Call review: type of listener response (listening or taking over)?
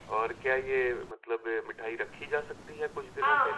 taking over